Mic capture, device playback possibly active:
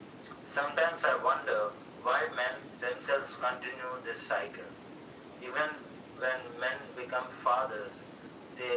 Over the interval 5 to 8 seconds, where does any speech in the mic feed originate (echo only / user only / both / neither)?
echo only